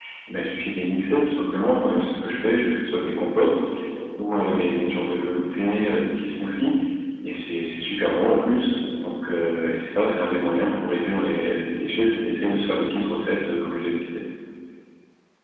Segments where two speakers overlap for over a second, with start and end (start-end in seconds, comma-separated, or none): none